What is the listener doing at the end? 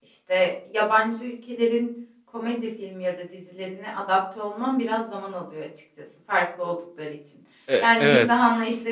listening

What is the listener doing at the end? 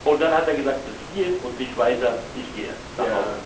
taking over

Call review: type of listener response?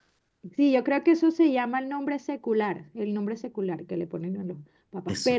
listening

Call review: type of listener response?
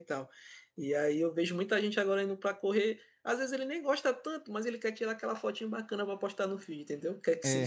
listening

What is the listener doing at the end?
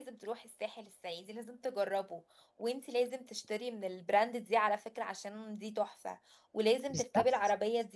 listening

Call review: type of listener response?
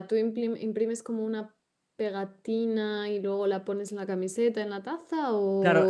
taking over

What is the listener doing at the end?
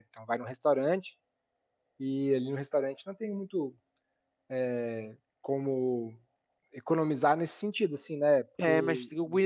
taking over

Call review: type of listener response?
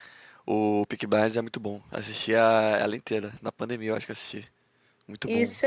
taking over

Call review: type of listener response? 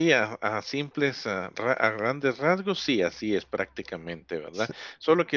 listening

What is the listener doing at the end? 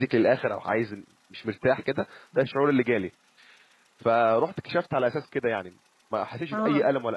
listening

